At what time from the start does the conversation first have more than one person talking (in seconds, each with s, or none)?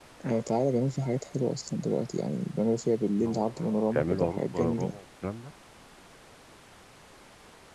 3.2 s